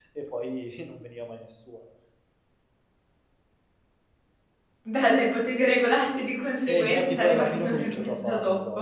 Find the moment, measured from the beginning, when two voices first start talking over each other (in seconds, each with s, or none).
6.7 s